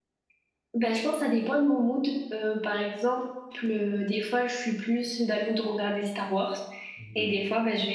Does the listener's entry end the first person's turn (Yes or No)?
No